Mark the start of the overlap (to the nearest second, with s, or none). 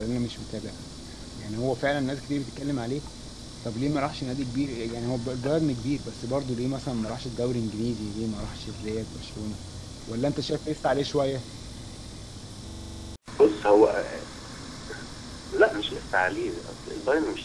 none